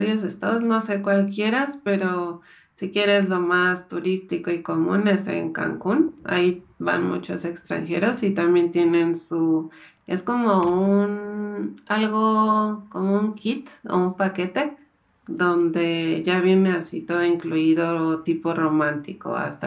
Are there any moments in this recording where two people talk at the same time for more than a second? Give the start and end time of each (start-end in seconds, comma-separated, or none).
none